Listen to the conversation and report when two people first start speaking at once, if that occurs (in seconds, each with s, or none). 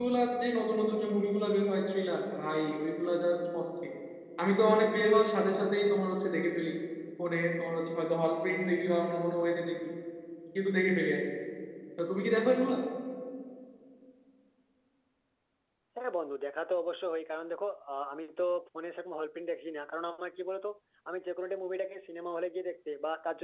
none